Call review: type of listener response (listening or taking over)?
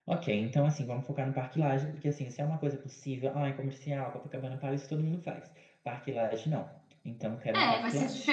taking over